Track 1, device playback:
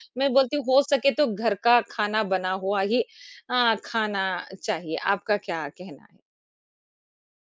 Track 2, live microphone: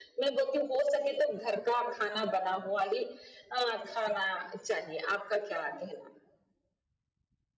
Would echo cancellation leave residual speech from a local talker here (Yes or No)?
No